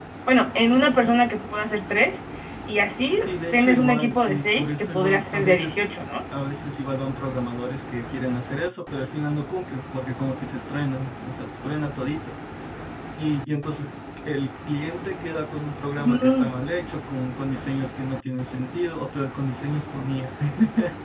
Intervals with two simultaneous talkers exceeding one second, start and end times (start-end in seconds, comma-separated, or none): 3.2-5.7